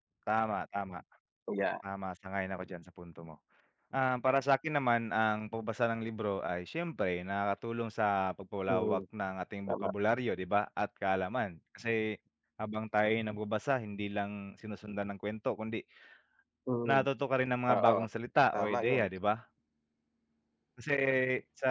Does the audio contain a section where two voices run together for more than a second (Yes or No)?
No